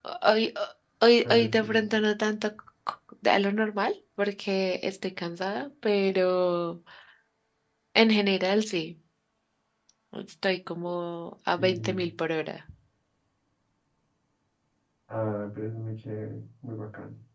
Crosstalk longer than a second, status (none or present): none